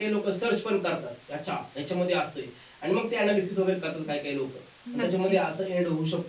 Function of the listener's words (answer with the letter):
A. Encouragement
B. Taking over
A